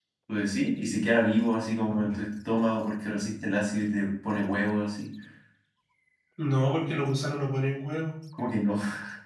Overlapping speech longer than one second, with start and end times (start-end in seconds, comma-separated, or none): none